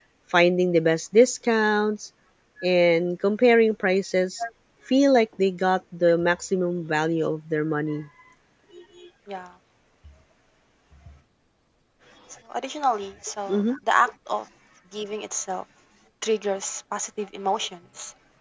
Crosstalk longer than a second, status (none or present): none